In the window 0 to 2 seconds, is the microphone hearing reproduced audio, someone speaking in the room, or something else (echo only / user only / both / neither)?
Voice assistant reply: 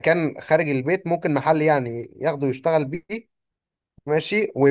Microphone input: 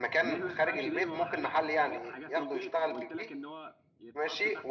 both